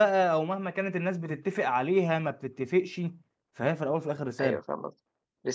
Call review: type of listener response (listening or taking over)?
taking over